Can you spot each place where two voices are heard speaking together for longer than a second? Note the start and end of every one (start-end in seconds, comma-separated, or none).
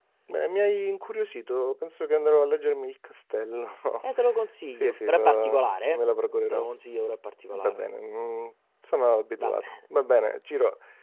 4.8-6.0